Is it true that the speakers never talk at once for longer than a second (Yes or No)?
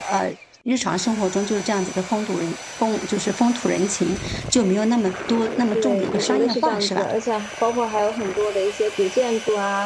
No